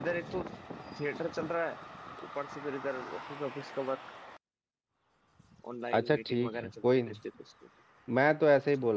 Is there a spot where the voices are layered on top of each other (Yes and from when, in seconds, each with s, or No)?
Yes, from 5.9 s